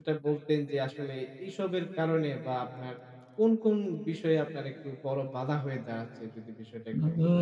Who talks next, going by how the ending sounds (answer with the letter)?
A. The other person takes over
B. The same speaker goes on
A